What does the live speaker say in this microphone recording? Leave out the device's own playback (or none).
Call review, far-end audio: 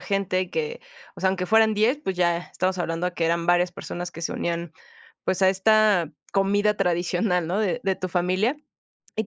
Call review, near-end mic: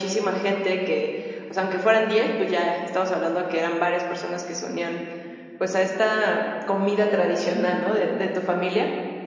none